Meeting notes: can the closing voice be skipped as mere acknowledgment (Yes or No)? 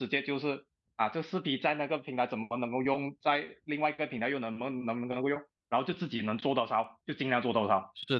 No